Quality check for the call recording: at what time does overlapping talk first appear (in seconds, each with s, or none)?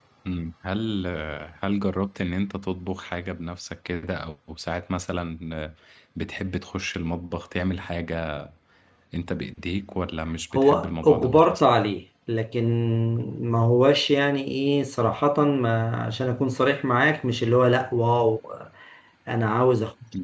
10.6 s